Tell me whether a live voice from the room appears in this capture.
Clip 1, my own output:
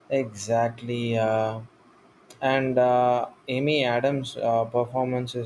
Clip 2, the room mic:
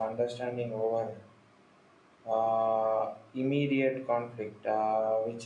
Yes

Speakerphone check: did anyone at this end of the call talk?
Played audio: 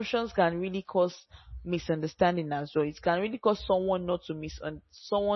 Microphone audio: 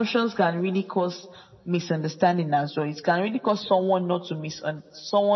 No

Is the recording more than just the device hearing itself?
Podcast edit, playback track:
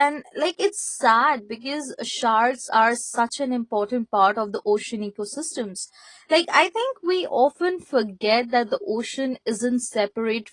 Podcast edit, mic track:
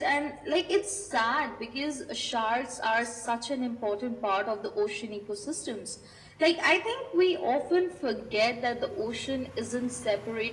No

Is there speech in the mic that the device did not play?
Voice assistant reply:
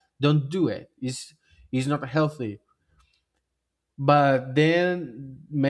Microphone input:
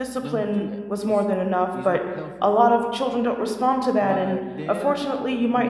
Yes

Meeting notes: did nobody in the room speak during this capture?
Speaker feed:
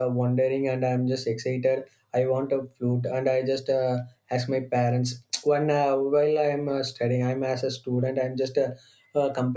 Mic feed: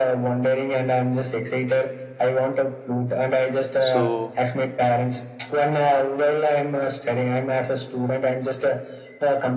No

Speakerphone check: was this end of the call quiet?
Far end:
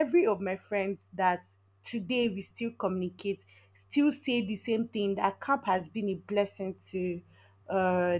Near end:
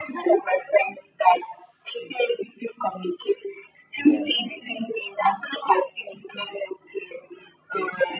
No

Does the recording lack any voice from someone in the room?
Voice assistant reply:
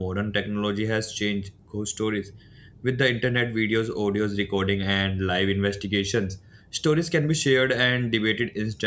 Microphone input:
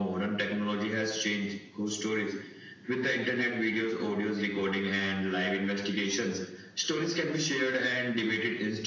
Yes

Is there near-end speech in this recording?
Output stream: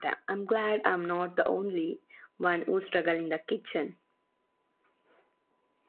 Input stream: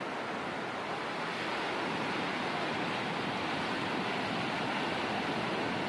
No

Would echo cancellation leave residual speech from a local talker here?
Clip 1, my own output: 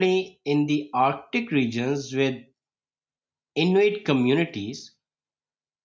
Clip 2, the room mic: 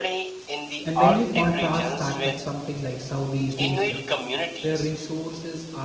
Yes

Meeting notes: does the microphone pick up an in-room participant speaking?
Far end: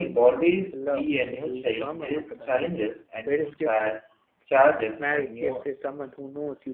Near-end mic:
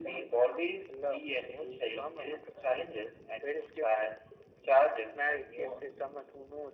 No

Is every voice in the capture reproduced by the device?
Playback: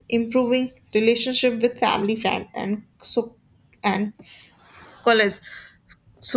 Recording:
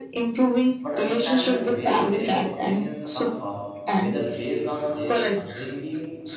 No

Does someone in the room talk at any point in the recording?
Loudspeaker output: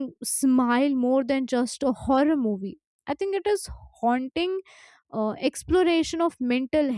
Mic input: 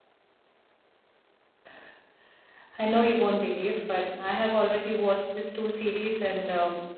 Yes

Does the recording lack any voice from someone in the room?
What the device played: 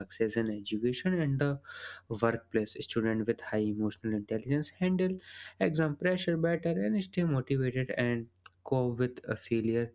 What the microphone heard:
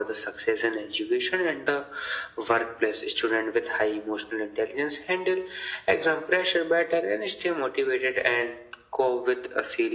Yes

